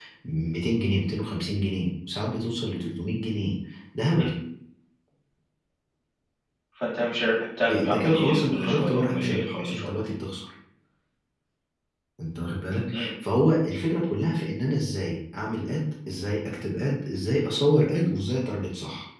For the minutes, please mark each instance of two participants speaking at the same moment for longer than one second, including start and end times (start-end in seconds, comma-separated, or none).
7.7-9.9